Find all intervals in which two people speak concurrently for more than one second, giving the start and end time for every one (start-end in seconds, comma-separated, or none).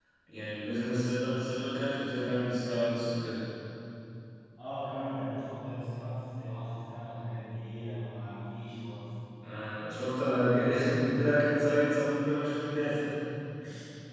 none